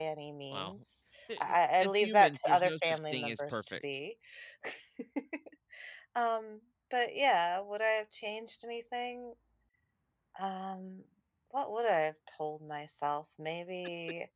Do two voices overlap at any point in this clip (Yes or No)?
Yes